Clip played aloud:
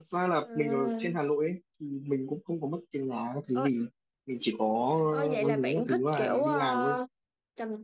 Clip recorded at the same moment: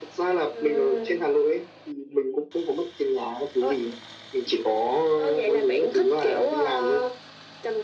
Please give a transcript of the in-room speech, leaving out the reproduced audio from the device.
none

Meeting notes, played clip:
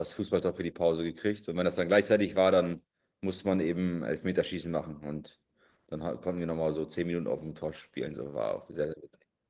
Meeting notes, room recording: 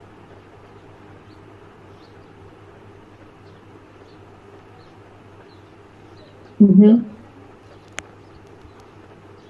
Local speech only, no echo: Mhm.

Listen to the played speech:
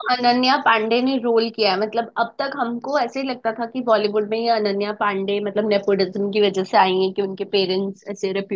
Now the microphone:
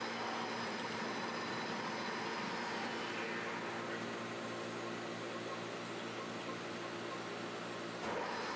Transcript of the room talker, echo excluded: none

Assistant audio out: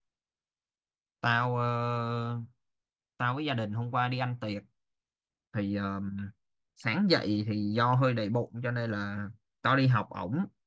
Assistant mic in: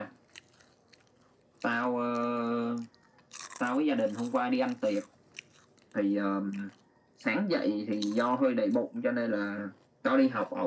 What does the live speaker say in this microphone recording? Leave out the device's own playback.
none

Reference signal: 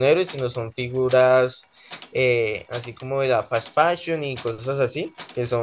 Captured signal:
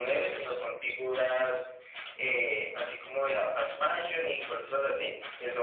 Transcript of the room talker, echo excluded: none

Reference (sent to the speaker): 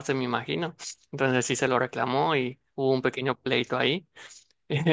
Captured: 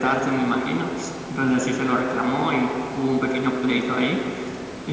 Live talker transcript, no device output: none

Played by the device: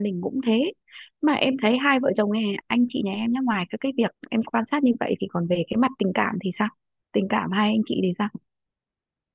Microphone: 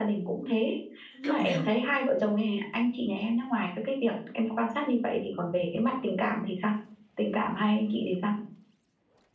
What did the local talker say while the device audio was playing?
lúc nào

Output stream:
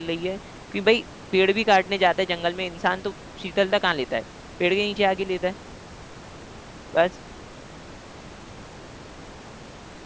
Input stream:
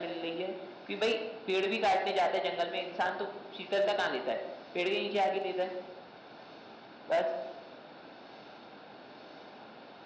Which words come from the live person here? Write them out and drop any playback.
none

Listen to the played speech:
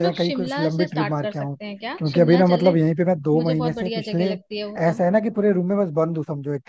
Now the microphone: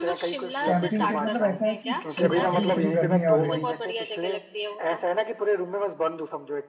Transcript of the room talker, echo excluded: कैंपिंग के मतलब ऐसा है कि देखो अभी इतनी गर्मी है ऑलरेडी

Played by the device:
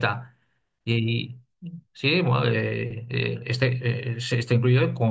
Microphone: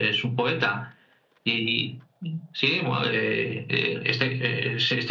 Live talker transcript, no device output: none

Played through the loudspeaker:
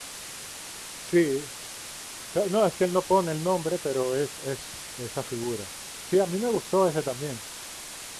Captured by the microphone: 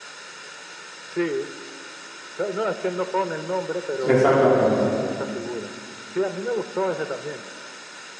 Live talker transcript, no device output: Exactamente.

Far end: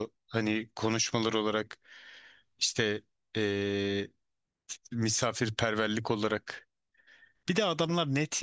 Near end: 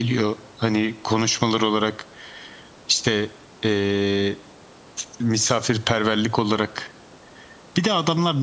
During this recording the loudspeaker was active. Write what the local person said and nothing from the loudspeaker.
none

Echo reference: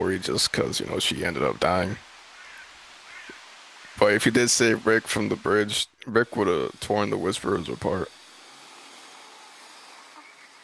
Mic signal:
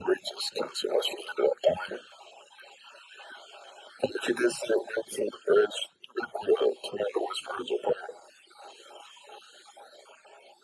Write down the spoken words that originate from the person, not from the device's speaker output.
none

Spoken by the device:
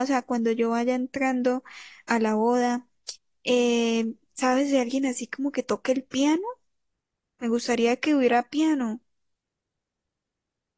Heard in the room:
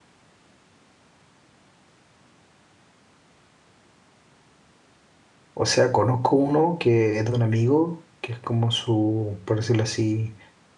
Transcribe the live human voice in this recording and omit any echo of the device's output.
o sea, conozco uno que es de un amigo, que es como su, por decirlo así,

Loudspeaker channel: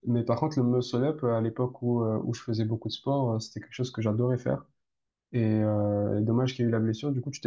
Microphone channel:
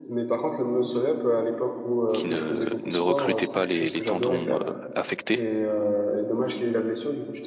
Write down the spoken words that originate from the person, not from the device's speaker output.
qui ne ne recrutaient pas les, les tendons euh, affectés.

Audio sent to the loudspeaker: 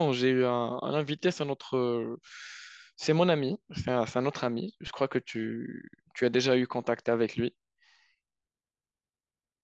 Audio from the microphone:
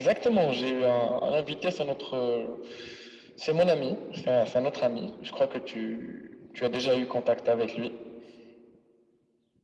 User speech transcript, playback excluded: none

